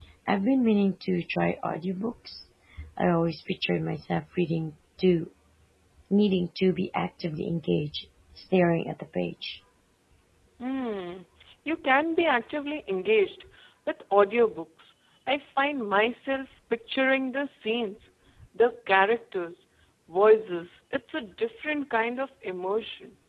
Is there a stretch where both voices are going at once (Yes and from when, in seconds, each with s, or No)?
No